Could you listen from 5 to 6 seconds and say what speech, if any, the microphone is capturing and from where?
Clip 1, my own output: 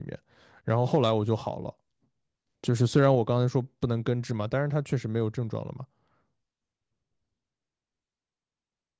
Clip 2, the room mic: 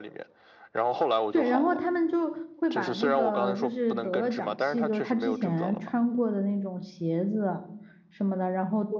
both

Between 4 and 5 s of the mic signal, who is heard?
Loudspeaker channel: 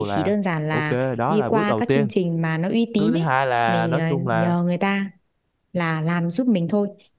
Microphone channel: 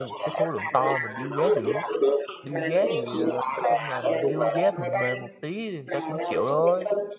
both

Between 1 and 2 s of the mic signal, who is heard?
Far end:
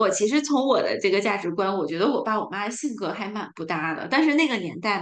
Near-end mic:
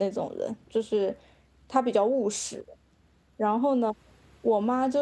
user only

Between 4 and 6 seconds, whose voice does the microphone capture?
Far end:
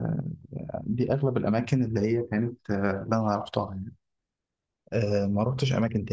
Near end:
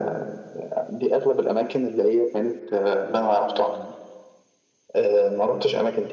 echo only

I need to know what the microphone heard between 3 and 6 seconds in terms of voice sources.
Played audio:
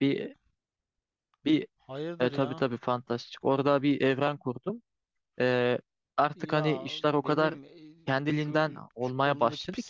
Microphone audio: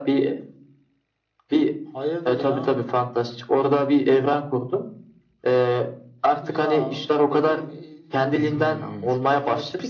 echo only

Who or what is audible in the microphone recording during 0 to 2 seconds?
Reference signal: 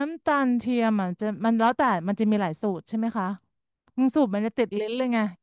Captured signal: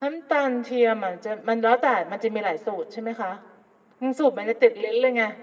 echo only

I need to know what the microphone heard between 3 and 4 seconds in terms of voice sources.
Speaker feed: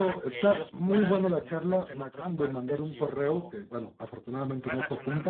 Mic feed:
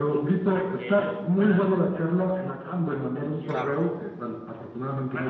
both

